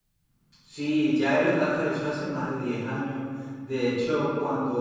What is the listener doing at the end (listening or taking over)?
listening